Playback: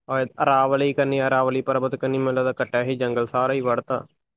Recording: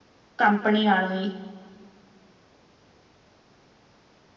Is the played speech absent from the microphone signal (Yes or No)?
Yes